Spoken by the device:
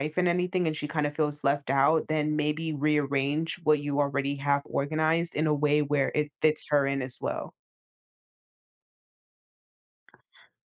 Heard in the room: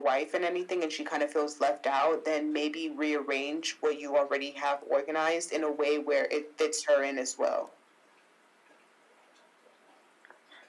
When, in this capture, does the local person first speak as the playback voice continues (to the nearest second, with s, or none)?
none